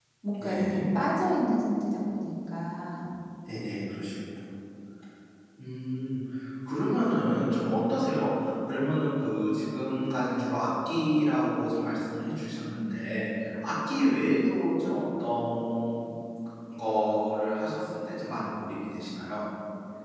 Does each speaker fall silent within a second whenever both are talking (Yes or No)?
Yes